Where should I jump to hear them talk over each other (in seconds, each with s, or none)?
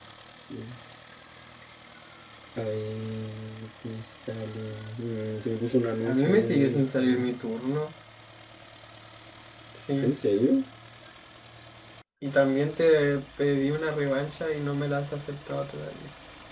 6.0 s